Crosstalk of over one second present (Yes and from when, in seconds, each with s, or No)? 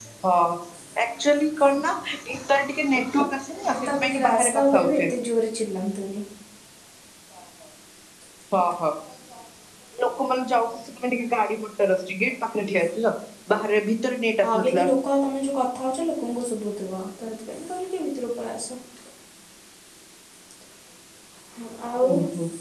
Yes, from 3.7 s